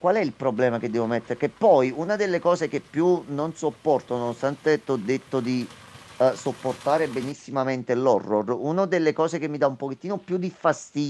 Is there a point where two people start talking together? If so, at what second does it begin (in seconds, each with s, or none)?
none